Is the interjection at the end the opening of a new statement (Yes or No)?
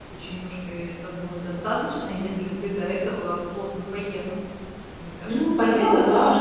Yes